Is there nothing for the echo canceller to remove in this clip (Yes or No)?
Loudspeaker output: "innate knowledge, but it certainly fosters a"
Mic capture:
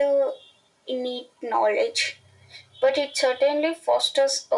No